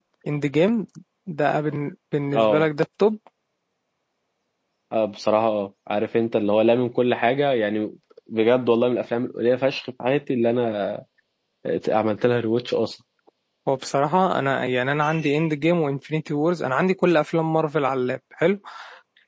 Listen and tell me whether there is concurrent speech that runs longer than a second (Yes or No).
No